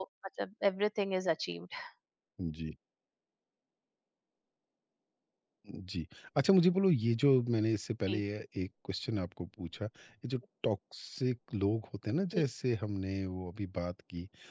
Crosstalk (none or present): none